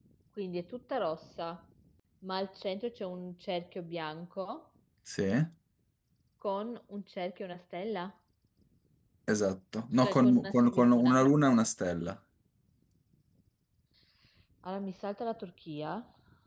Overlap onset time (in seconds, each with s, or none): 10.0 s